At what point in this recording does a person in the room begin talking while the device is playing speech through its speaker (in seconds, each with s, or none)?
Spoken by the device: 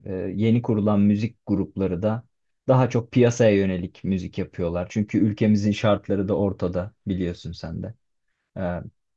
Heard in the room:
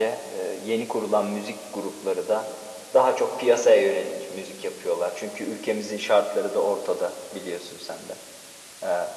none